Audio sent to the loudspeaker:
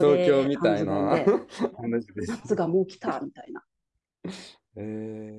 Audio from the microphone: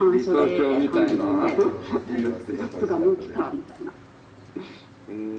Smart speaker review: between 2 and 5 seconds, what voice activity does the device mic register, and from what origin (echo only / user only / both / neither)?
both